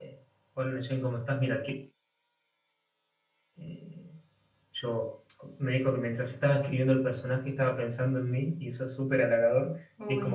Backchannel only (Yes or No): Yes